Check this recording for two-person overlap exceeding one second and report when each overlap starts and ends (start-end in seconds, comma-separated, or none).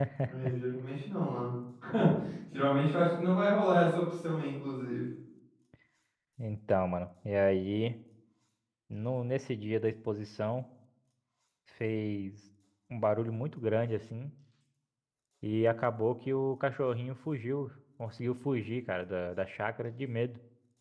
none